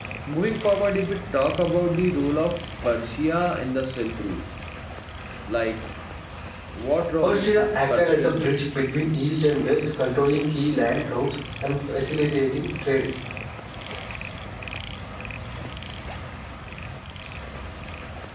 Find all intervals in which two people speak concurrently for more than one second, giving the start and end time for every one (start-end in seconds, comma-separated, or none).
7.2-8.6